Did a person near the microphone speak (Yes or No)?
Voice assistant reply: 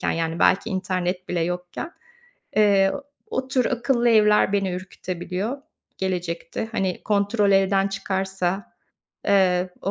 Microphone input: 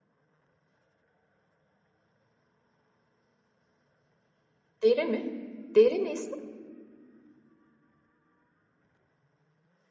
Yes